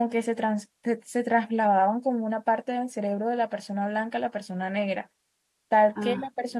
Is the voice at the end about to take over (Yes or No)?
No